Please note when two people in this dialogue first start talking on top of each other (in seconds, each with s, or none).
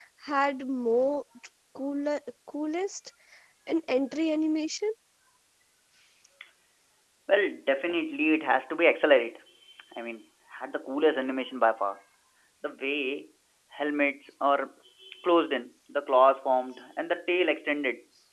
none